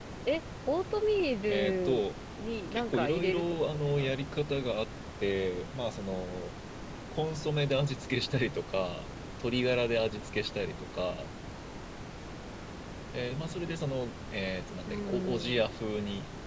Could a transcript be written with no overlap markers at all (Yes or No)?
No